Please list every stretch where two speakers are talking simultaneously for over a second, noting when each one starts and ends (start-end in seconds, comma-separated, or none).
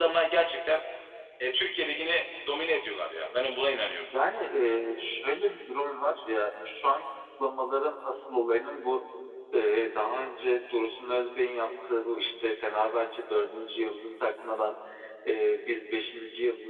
none